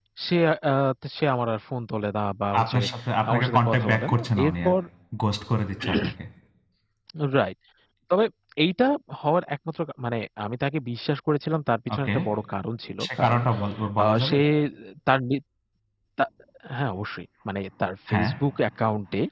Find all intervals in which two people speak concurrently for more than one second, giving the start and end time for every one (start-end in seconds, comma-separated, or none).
3.3-4.7